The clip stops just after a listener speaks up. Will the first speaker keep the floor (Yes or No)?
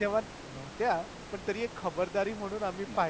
Yes